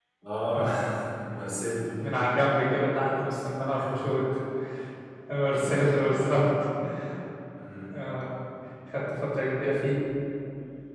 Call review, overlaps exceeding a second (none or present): none